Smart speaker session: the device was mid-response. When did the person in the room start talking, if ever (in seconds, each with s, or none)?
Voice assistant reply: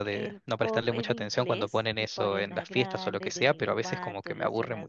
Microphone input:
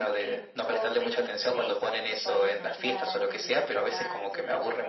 none